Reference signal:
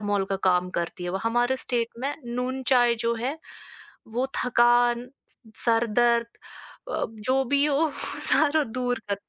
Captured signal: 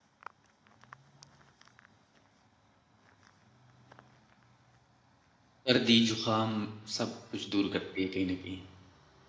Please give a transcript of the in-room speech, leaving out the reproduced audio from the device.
सर्दी, ज़ुकाम सब कुछ दूर करती है कहीं न कहीं।

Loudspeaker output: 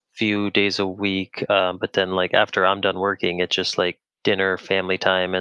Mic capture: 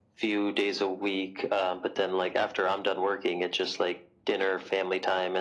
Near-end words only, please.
none

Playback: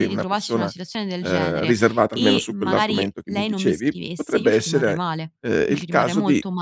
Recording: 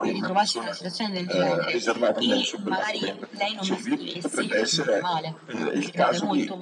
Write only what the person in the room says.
mh-mh,

